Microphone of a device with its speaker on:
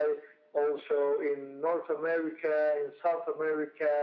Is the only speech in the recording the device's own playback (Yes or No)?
Yes